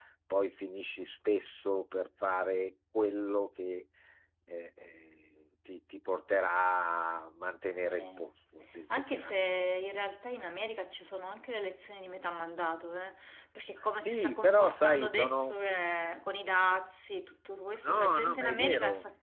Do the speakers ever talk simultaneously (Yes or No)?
Yes